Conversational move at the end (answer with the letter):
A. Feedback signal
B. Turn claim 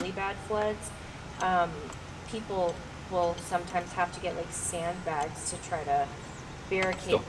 A